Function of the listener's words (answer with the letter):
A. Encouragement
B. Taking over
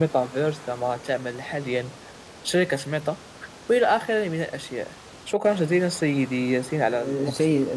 B